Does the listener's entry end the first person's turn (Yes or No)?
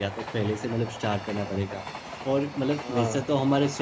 No